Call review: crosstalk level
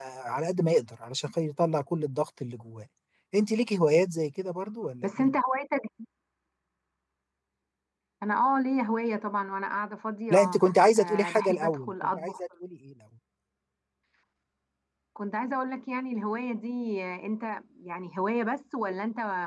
present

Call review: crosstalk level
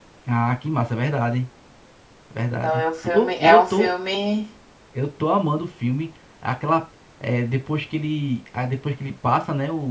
present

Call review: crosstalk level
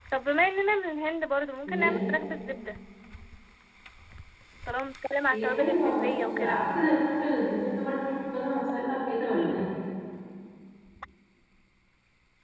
present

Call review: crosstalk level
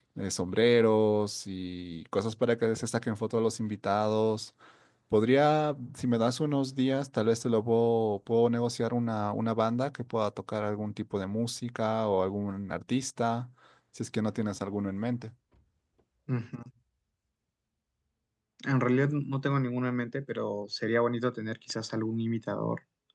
none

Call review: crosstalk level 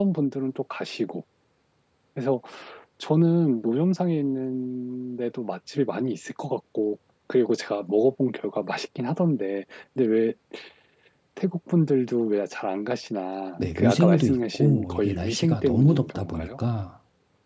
present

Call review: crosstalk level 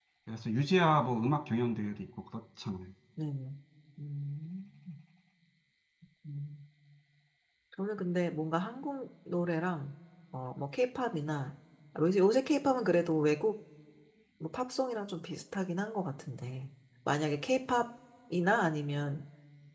none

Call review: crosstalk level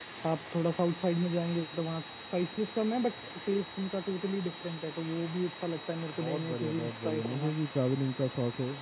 present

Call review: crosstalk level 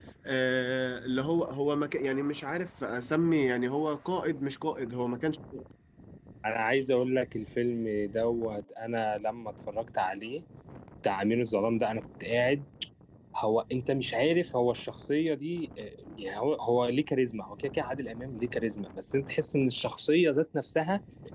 none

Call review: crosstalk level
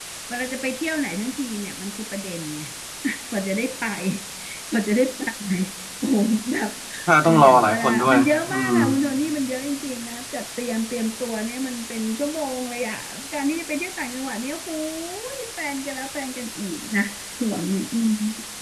present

